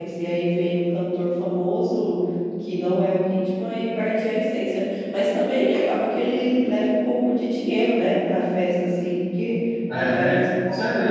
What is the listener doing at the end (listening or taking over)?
taking over